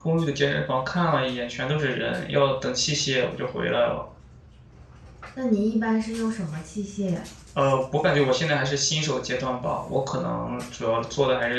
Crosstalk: none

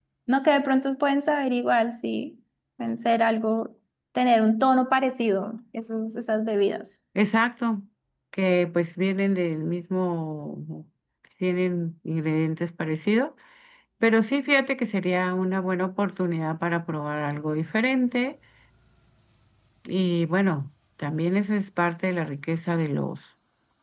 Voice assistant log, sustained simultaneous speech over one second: none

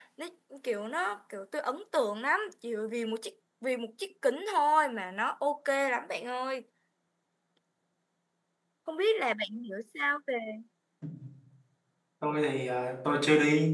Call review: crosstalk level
none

